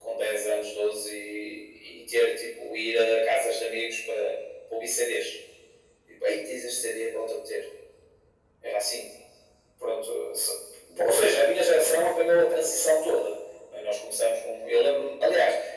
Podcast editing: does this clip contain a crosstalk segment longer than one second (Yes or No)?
No